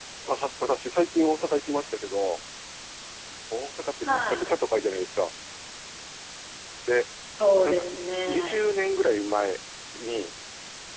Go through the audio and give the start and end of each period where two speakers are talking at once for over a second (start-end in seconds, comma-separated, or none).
none